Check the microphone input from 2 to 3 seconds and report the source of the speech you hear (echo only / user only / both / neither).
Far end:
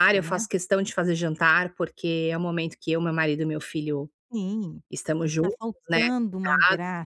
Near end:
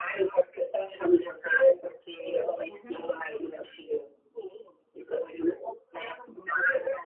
both